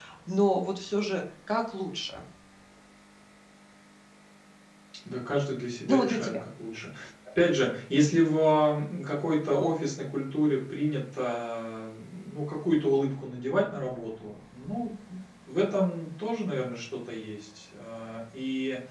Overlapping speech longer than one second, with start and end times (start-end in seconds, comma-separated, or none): none